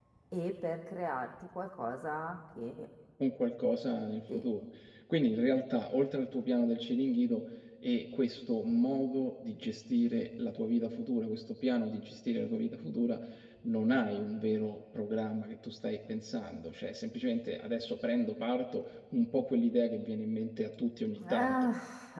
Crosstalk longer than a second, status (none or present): none